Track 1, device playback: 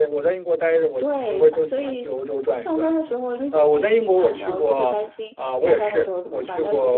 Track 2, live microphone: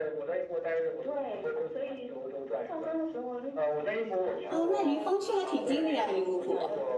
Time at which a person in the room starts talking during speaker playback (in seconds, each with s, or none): 4.5 s